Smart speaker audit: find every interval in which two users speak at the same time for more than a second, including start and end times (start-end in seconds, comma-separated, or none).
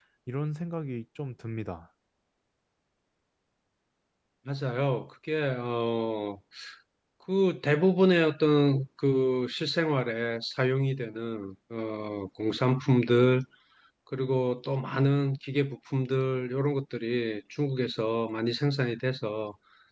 none